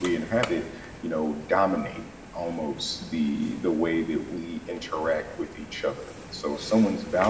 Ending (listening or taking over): listening